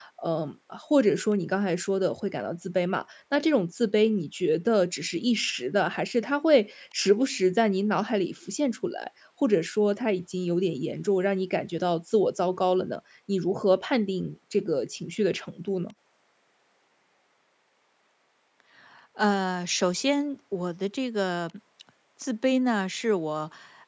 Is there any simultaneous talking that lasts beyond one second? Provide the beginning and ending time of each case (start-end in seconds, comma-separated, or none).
none